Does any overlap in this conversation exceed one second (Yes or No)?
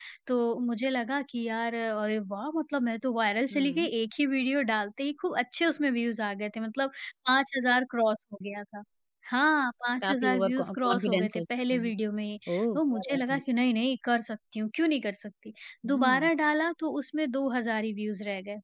Yes